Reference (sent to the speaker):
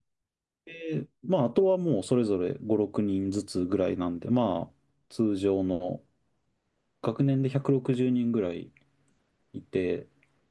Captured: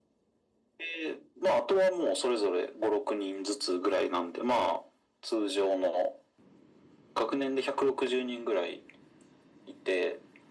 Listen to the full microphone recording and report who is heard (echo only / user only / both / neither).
echo only